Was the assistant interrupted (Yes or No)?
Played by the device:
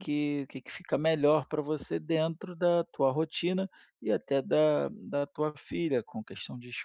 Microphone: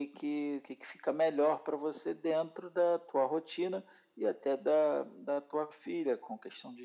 No